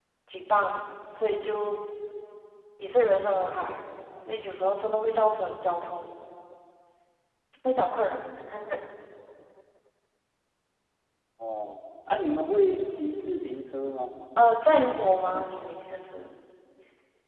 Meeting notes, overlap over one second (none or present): none